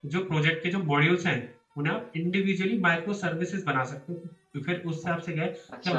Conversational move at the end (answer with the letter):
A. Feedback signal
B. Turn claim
A